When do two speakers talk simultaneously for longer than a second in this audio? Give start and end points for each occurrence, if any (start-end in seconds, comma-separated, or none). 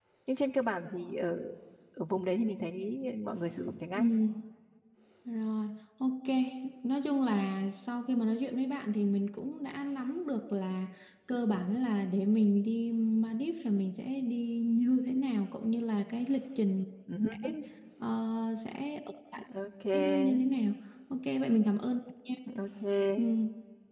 none